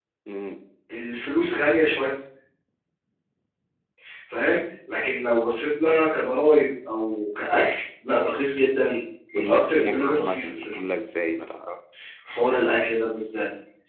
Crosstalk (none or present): present